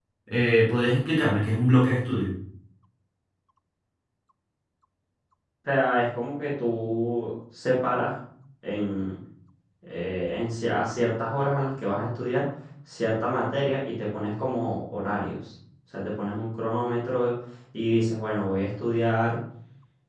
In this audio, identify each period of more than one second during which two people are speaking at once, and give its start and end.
none

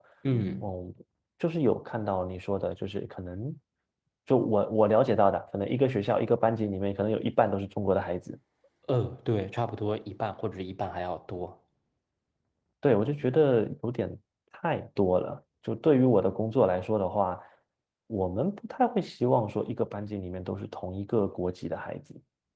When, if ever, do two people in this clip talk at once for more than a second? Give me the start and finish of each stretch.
none

